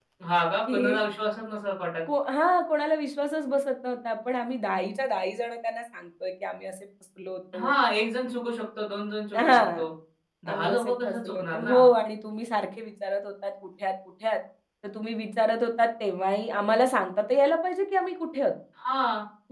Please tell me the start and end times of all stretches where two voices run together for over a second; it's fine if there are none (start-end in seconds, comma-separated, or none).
10.5-11.8